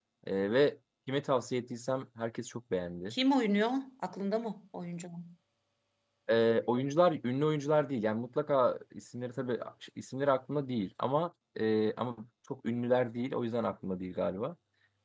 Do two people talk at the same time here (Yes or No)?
No